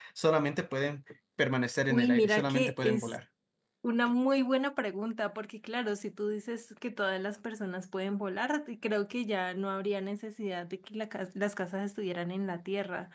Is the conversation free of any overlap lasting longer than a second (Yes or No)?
No